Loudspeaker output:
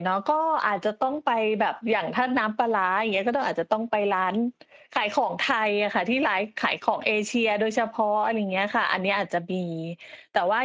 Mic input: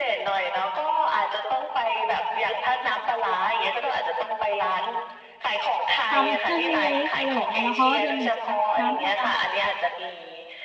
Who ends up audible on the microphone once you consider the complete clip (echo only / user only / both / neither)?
both